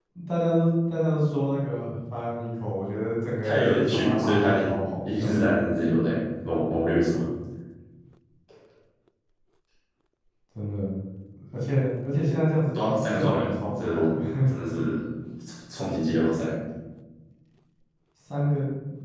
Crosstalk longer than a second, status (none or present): present